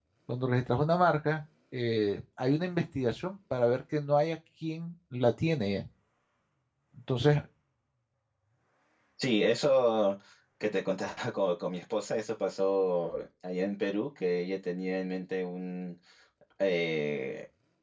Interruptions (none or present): none